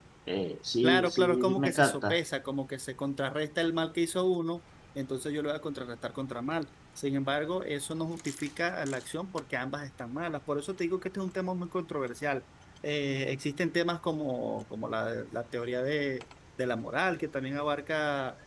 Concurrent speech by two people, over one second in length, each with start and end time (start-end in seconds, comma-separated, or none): 0.8-2.2